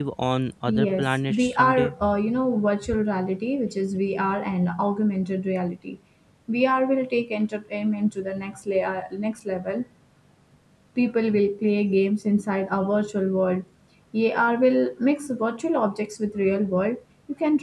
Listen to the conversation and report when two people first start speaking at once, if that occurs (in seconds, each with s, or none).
0.7 s